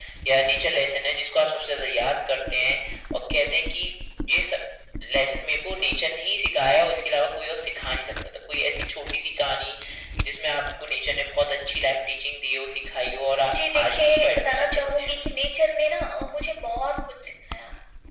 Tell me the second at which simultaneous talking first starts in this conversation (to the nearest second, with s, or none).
14 s